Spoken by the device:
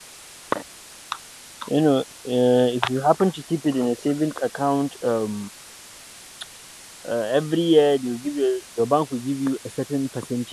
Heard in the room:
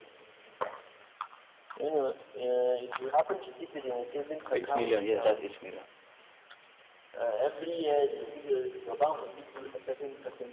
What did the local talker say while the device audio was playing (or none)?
eight million. Yes, that's eight million.